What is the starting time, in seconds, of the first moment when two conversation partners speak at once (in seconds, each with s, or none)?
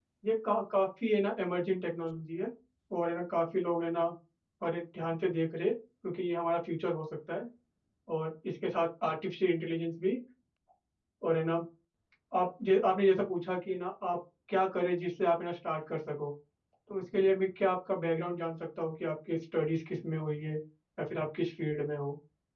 none